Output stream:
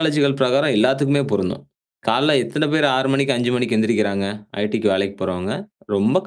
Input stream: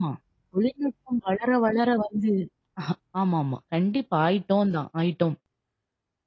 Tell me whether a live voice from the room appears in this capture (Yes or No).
Yes